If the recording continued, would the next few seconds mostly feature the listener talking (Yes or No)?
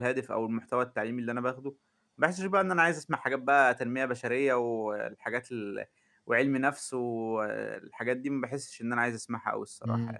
Yes